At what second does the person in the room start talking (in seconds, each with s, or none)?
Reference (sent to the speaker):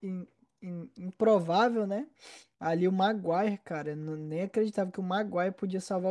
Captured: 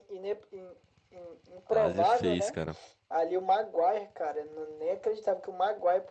1.7 s